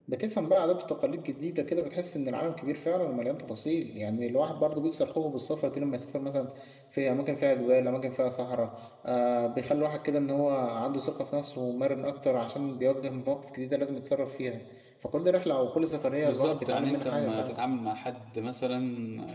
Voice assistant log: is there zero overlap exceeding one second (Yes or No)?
No